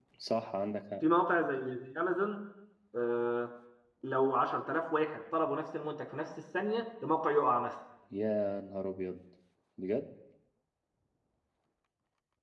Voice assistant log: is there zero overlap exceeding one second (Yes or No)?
Yes